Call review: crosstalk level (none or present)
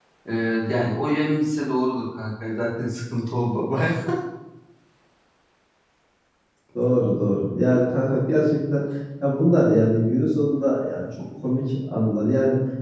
none